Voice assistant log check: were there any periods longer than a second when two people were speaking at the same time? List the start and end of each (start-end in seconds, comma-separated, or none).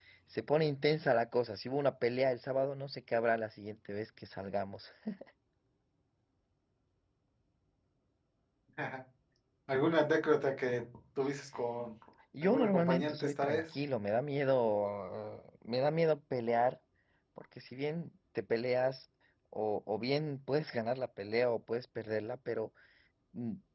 12.4-13.6